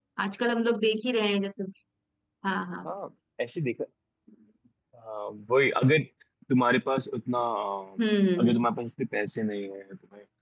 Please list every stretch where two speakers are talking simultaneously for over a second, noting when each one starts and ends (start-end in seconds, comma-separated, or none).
none